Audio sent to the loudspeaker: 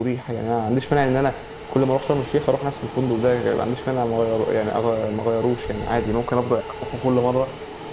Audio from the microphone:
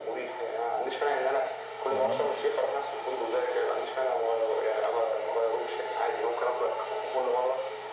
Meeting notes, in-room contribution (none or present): present